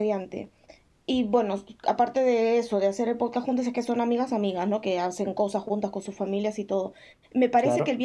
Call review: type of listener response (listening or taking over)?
listening